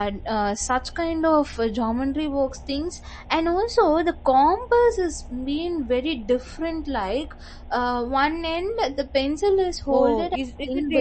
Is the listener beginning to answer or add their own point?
Yes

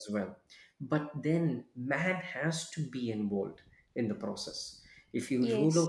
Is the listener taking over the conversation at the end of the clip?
No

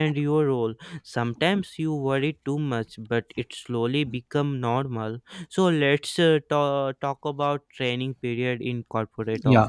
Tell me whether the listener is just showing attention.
No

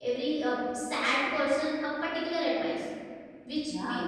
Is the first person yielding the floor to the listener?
No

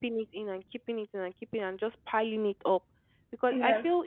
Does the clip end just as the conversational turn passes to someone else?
No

